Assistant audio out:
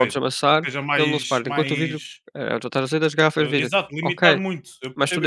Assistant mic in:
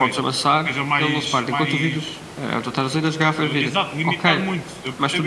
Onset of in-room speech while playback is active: none

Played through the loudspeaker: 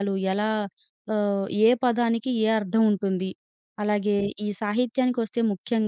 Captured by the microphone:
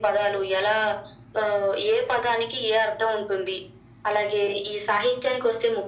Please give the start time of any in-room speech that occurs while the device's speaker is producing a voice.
none

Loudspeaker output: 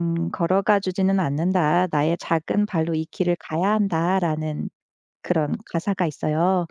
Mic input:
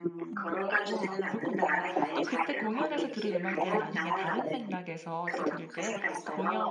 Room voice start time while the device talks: 0 s

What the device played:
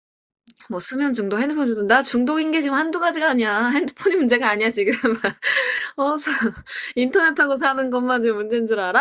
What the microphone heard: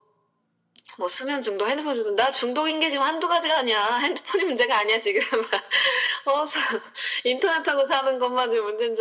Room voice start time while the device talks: none

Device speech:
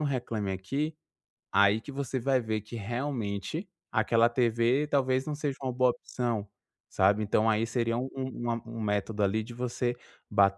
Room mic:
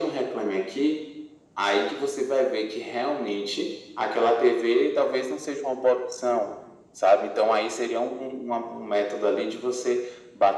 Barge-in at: none

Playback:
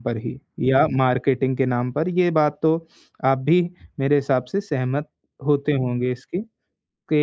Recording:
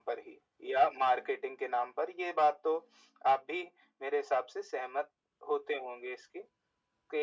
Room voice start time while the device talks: none

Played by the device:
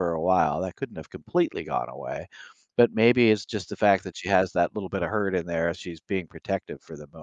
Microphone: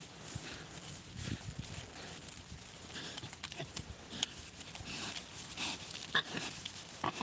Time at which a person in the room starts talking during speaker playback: none

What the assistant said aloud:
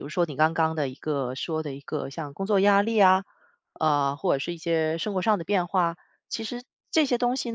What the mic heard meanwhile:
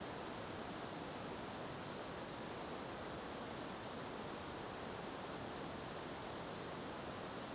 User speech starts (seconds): none

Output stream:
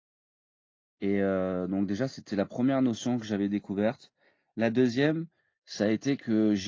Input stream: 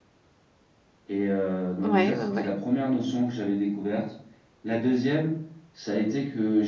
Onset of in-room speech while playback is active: 2 s

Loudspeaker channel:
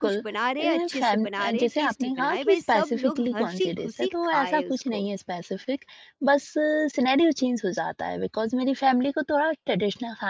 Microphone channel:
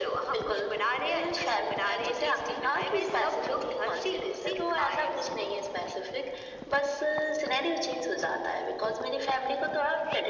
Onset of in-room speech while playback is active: none

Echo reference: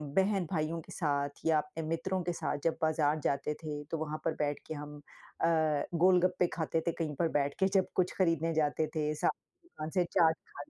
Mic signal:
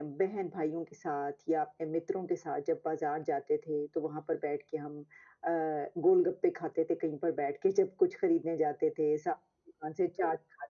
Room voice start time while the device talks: none

